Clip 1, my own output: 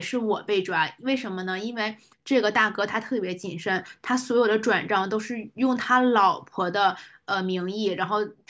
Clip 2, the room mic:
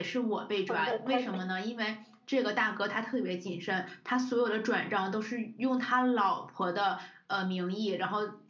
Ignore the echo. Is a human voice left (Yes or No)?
Yes